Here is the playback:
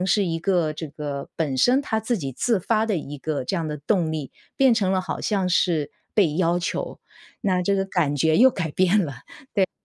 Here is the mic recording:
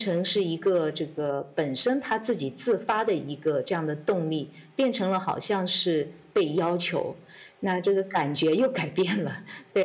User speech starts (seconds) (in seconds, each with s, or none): none